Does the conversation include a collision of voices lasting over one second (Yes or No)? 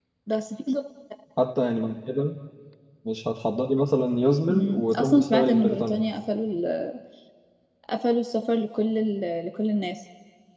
Yes